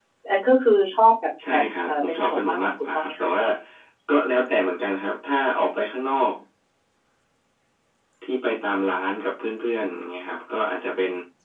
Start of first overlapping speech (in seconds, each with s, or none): 1.4 s